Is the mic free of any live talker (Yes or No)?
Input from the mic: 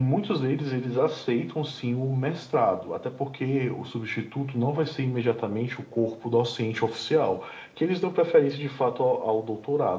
Yes